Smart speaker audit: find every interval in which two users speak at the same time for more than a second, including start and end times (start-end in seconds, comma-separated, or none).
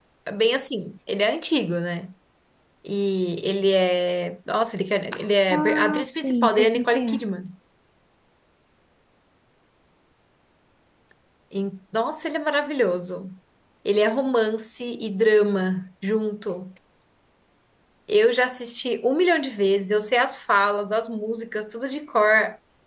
5.5-7.2